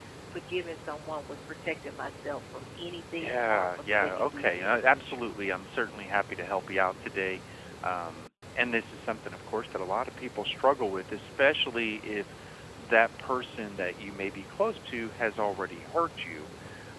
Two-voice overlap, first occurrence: 3.1 s

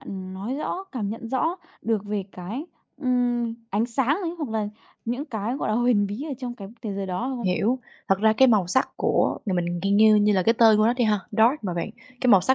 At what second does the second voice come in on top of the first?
none

